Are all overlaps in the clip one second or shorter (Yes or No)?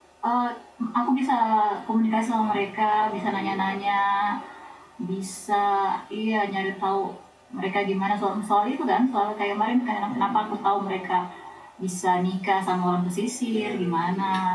No